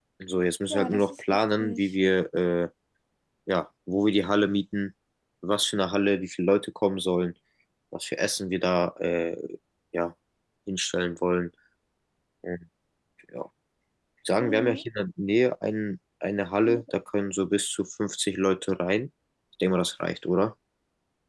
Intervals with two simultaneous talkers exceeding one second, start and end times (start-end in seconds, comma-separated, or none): 0.7-1.9